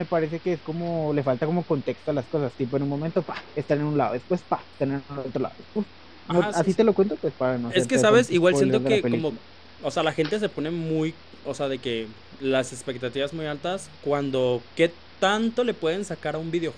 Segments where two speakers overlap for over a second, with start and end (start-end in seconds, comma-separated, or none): 7.7-9.2